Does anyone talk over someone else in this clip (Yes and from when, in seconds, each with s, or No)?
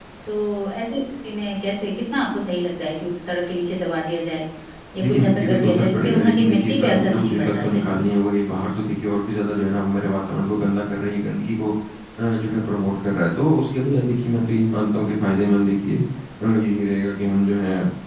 Yes, from 5.0 s